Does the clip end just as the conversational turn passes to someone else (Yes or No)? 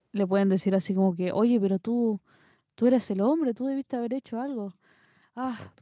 No